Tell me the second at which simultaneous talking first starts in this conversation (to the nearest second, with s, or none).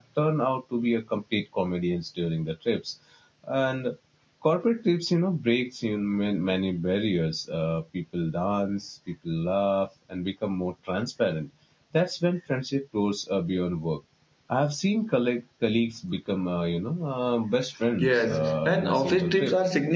18 s